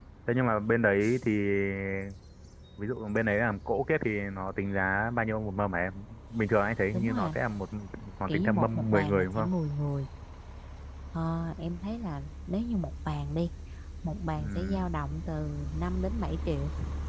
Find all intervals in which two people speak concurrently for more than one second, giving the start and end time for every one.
8.3-9.5

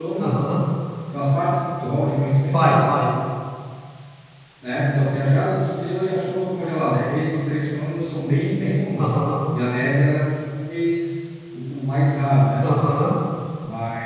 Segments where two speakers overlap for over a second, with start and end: none

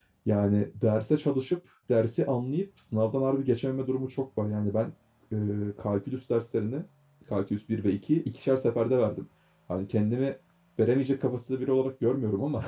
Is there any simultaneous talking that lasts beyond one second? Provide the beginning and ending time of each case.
none

